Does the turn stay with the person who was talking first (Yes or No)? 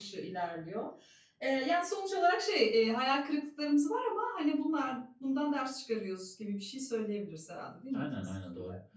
No